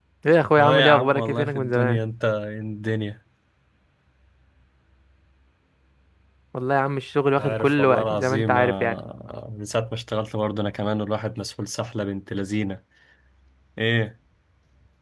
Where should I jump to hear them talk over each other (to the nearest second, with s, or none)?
1 s